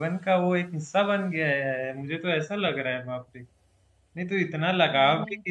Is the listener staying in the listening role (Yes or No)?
Yes